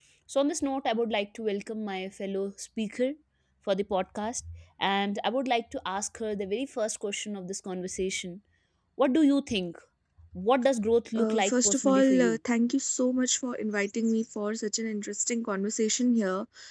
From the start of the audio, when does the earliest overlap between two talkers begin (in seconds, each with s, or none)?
11.2 s